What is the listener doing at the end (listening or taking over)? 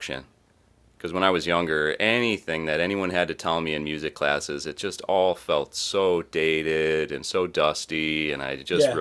listening